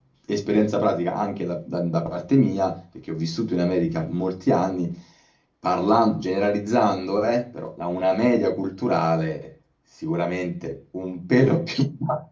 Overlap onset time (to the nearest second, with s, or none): none